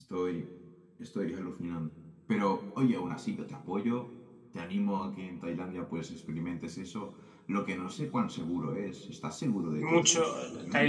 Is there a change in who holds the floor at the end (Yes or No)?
Yes